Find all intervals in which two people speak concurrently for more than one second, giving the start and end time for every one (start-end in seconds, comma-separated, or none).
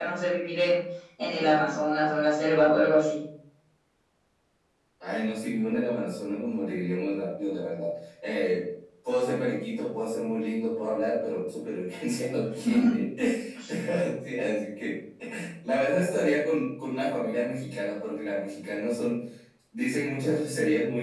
none